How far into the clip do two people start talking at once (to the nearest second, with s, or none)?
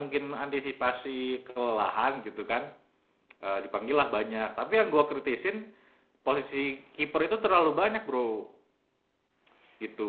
none